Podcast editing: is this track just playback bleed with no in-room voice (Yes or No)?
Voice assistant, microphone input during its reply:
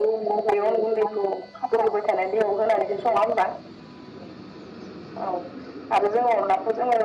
Yes